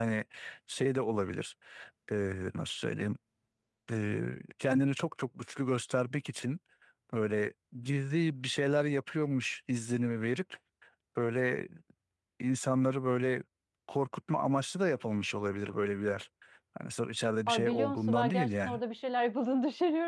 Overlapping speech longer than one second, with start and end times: 17.5-18.8

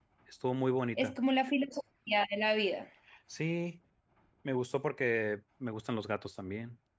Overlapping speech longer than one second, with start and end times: none

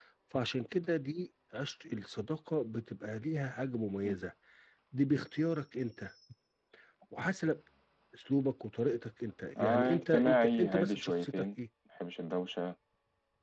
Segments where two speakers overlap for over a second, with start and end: 9.6-11.4

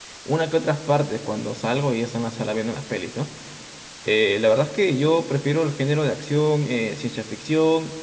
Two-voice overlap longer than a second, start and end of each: none

